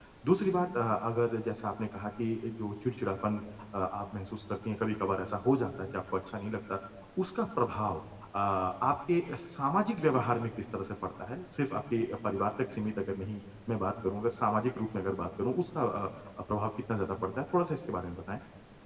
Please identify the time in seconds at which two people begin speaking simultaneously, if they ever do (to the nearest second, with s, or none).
none